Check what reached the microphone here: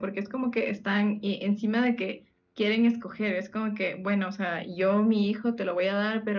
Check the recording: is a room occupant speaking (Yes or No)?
No